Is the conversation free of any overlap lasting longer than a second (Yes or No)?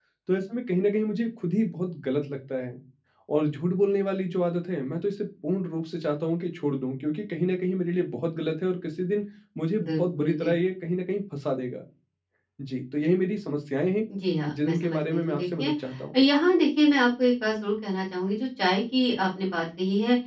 No